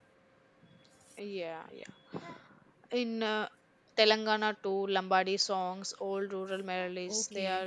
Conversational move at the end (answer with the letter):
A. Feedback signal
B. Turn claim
B